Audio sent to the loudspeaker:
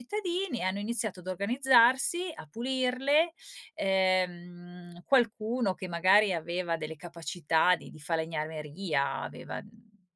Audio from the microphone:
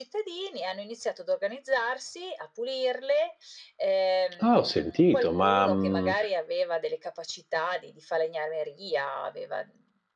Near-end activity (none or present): present